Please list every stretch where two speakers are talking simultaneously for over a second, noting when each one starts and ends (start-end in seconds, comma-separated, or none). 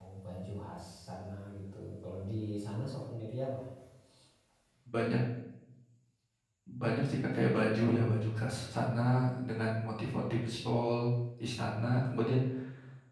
none